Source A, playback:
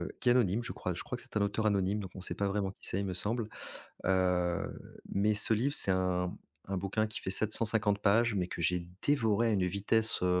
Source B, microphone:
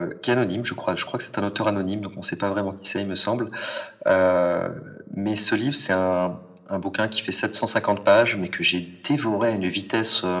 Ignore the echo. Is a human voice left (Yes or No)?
No